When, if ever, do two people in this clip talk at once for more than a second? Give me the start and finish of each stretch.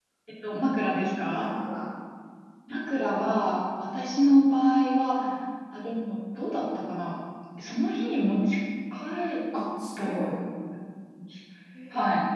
none

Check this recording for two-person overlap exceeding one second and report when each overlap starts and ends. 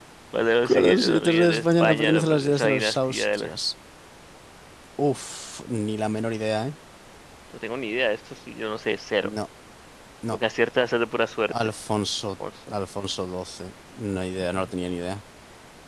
0.7-3.5

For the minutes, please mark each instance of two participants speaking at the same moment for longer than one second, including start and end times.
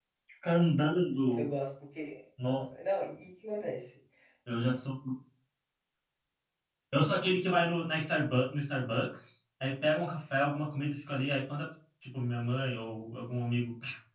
none

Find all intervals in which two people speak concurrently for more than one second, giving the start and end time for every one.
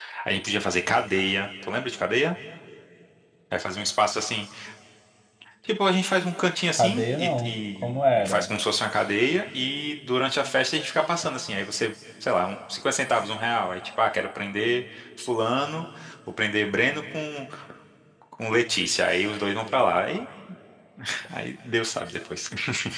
6.8-8.5

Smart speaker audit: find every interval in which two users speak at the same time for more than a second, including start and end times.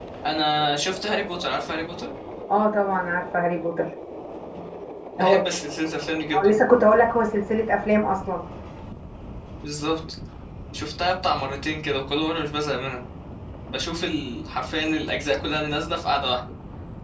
none

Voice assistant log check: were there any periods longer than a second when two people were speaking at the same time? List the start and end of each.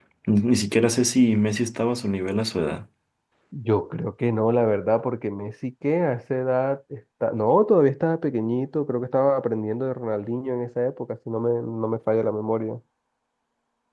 none

